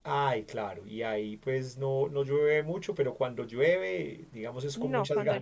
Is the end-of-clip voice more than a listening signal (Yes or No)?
Yes